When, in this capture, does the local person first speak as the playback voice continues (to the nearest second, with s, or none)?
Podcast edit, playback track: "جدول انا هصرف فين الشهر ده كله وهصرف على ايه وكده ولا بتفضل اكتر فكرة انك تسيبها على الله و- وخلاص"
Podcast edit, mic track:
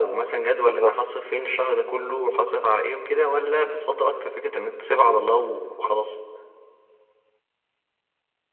1 s